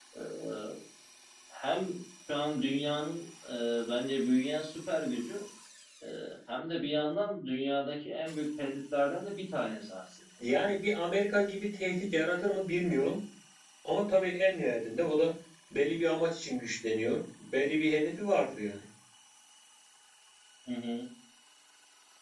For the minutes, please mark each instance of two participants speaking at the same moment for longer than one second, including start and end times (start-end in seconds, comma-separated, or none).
none